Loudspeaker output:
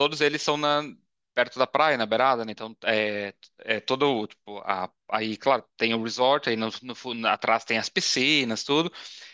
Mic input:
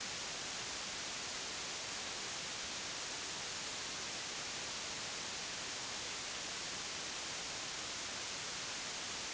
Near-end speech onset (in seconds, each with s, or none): none